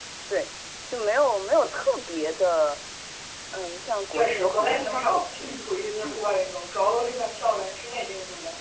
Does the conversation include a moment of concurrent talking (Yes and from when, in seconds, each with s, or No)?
Yes, from 4.1 s